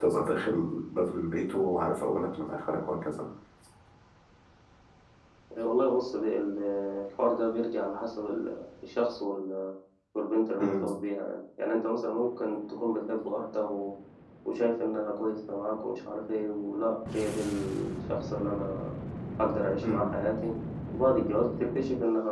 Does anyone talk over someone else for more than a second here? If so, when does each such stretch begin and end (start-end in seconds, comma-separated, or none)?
none